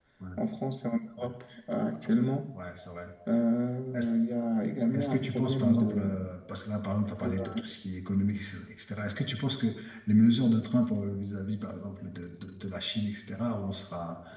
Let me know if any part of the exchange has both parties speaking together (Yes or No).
Yes